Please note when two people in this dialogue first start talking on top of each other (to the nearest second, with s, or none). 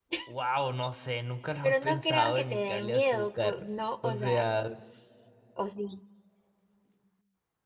2 s